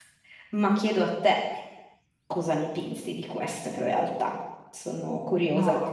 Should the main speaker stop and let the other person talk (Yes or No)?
Yes